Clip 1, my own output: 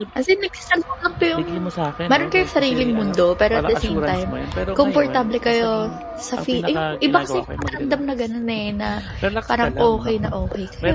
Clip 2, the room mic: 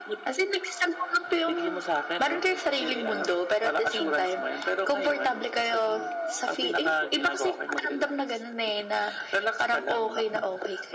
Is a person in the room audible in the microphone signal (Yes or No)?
No